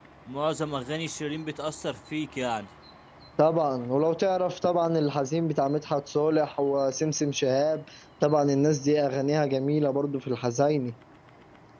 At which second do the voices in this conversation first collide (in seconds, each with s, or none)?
none